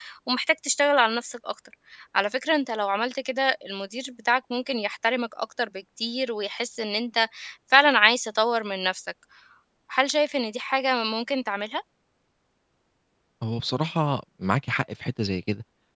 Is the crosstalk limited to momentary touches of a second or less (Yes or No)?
Yes